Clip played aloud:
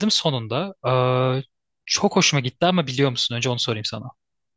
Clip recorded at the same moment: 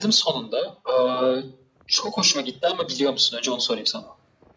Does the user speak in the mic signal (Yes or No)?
No